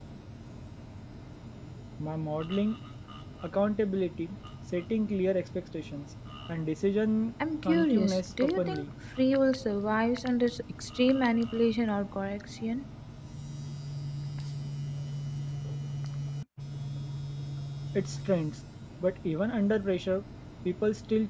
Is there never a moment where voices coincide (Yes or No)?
No